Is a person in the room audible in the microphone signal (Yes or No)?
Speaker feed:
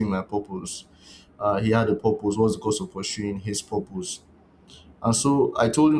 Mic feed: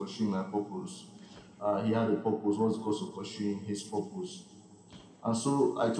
No